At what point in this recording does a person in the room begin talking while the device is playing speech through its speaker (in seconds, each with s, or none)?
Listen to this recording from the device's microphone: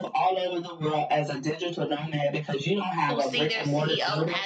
3.1 s